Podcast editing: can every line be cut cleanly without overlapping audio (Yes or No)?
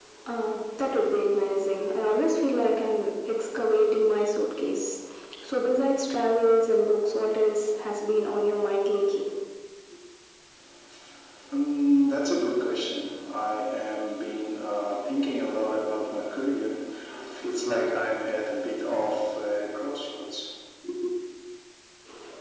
Yes